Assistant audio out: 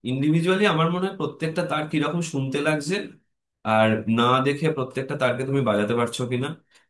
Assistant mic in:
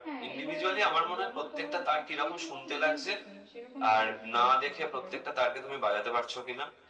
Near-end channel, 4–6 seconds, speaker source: both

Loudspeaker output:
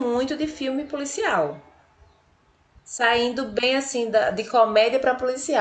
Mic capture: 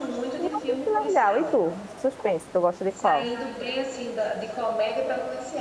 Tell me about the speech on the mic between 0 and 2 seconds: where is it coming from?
both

